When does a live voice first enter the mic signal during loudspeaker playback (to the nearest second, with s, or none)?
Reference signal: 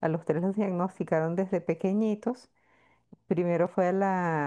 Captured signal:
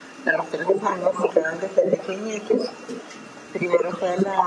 none